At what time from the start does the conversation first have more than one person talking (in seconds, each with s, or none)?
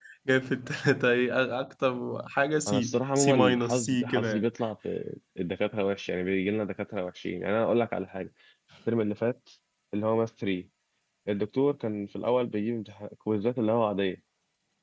2.7 s